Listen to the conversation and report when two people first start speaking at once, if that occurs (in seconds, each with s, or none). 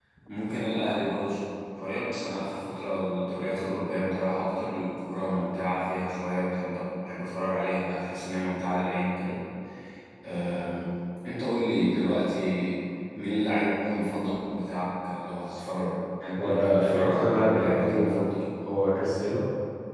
16.4 s